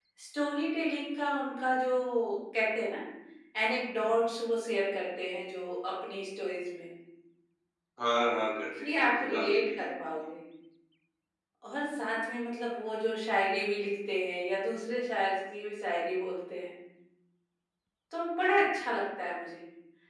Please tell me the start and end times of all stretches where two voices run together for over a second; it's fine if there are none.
8.8-10.2

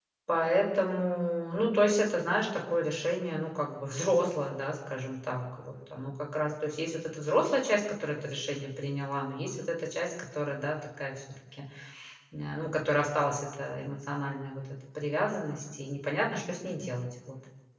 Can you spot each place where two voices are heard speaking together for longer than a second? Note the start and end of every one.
none

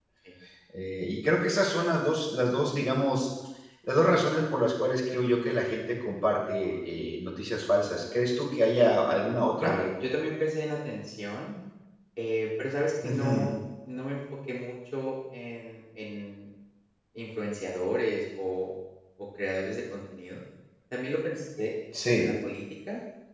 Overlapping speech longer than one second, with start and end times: none

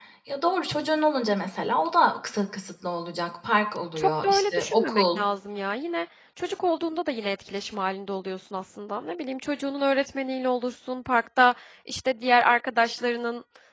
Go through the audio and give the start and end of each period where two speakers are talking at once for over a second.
4.0-5.2

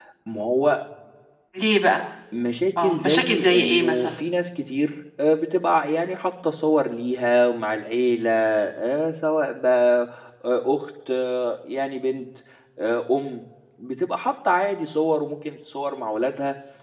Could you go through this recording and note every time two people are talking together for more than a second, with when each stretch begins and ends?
2.8-4.2

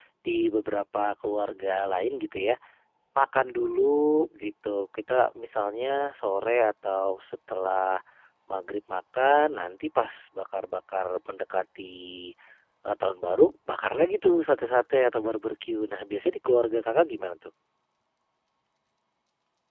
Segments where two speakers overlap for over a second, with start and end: none

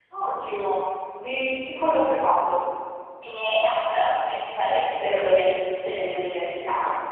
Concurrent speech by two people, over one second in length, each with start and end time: none

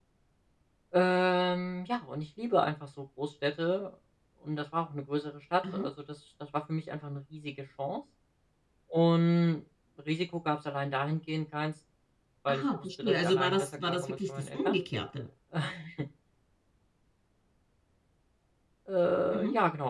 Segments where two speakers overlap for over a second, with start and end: 12.5-14.8

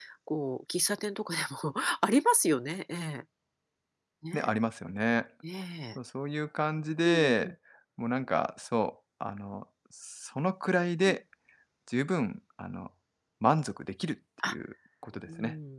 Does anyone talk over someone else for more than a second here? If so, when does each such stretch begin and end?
none

